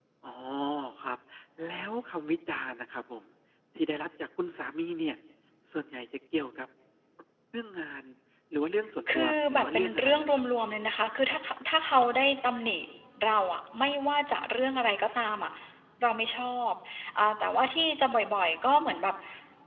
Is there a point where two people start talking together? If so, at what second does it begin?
9 s

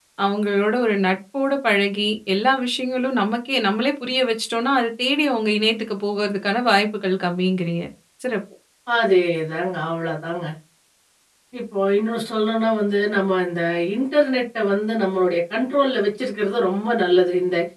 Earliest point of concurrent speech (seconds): none

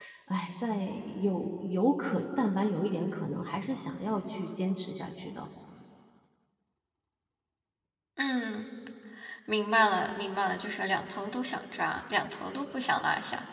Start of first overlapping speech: none

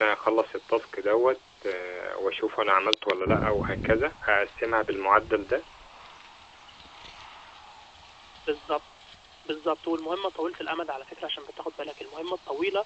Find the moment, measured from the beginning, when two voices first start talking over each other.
none

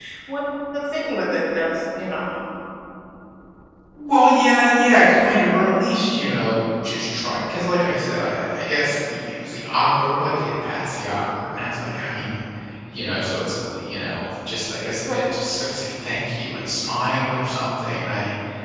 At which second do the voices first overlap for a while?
none

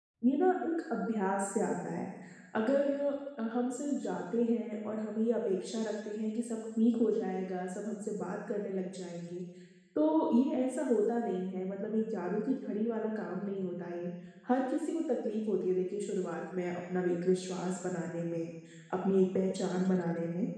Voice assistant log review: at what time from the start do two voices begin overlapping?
none

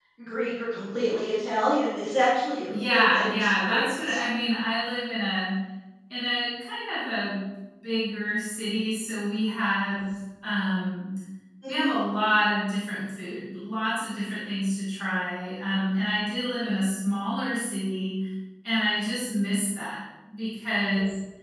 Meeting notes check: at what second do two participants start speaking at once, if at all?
3 s

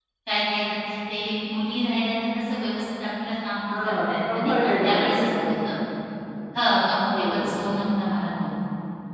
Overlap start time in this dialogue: 4 s

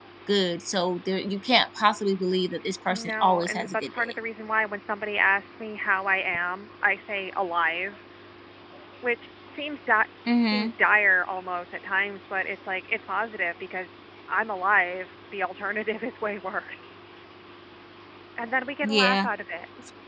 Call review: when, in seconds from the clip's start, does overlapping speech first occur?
3 s

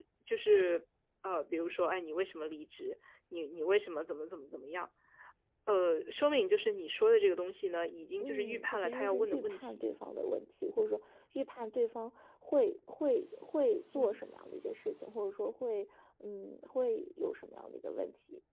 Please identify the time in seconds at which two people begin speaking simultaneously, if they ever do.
8 s

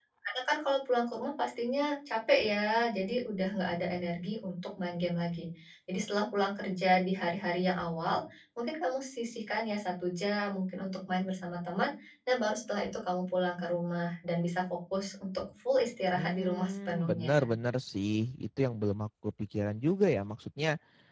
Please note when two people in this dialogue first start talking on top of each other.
16 s

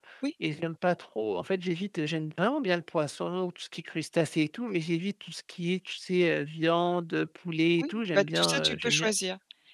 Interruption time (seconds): 8 s

